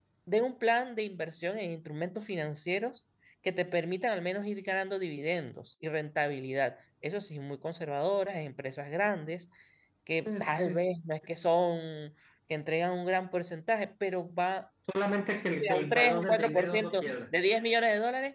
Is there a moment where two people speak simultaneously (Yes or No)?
Yes